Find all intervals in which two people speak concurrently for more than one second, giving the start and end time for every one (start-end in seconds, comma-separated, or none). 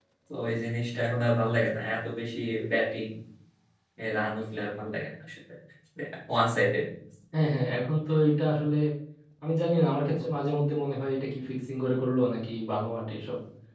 none